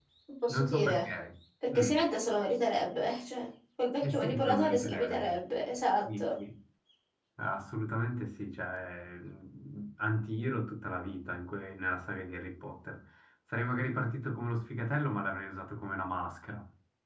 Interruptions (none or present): present